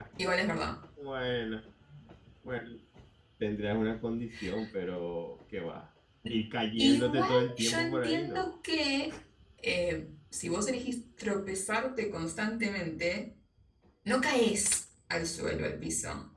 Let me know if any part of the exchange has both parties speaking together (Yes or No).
Yes